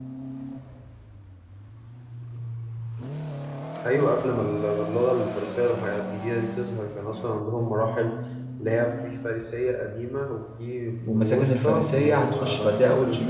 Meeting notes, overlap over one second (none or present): present